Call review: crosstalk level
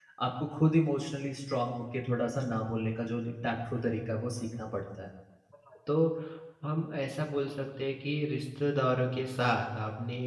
none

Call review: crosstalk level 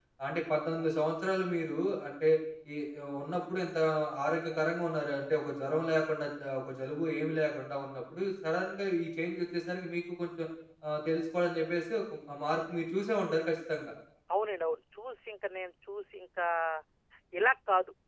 none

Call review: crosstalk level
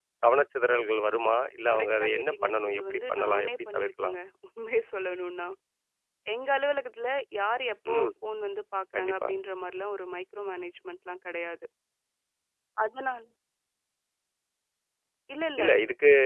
present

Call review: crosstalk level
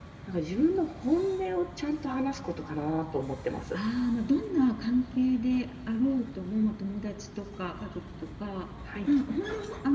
none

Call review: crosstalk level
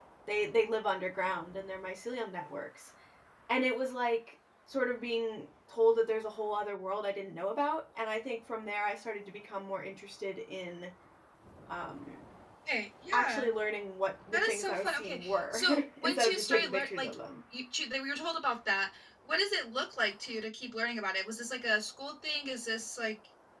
present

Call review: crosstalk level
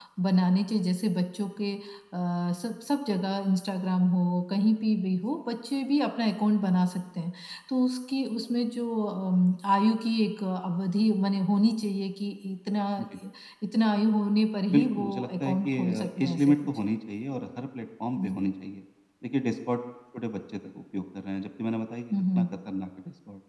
present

